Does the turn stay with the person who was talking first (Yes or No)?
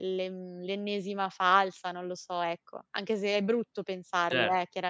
No